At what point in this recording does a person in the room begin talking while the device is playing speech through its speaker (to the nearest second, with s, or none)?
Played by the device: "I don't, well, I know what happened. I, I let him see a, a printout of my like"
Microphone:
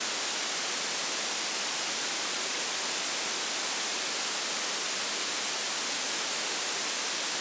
none